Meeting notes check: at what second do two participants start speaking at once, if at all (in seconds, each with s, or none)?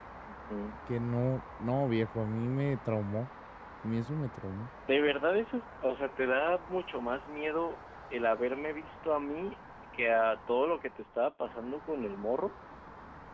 none